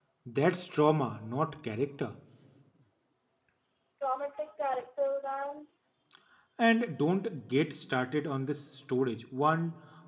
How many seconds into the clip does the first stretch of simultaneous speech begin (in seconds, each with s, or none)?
none